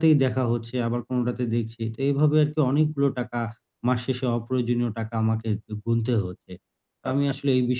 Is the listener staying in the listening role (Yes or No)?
Yes